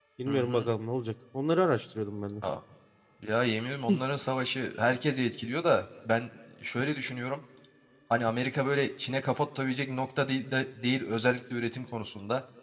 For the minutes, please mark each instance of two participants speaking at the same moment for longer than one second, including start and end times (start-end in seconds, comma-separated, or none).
none